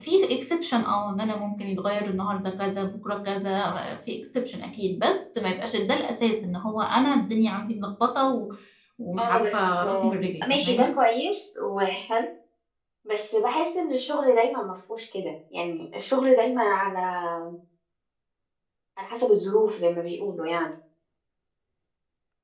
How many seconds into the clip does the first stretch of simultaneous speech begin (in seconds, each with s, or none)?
9.2 s